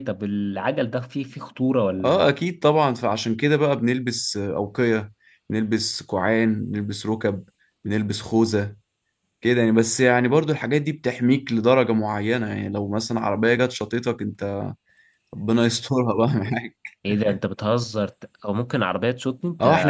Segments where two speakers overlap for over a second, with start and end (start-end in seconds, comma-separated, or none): none